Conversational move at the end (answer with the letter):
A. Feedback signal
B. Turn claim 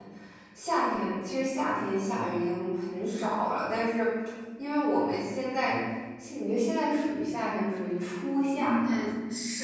B